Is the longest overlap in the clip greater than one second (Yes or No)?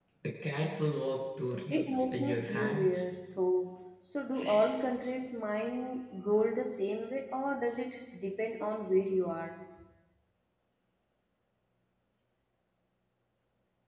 Yes